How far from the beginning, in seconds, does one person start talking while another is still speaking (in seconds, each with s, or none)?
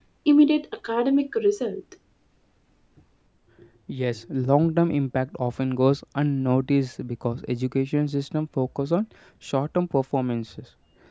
none